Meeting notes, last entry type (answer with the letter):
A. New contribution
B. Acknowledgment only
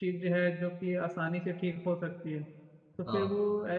B